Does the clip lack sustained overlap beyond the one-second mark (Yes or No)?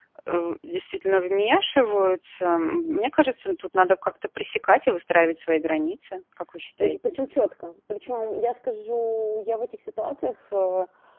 Yes